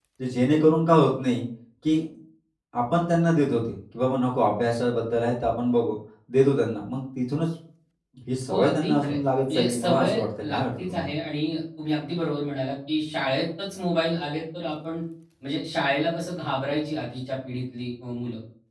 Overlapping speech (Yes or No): Yes